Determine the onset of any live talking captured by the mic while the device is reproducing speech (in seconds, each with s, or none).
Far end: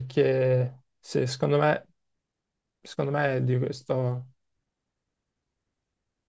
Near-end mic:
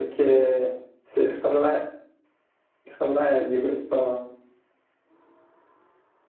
none